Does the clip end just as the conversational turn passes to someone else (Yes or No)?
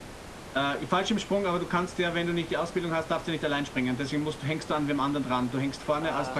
Yes